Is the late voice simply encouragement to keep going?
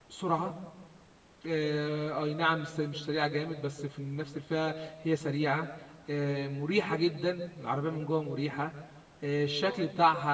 Yes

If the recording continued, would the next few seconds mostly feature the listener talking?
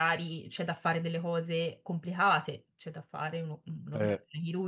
No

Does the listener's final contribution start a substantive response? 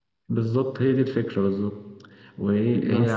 No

